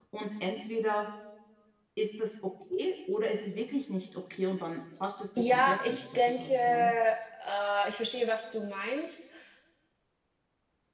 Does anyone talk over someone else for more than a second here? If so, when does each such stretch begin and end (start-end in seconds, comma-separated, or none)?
5.4-6.9